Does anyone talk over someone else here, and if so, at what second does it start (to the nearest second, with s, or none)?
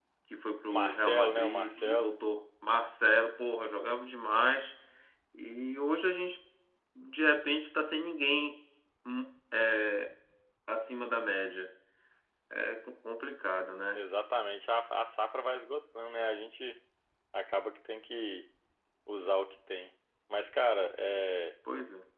1 s